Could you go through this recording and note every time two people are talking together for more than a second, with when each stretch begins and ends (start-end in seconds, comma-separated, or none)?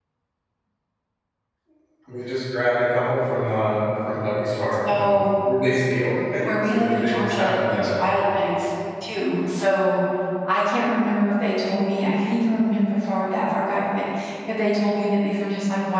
6.4-7.9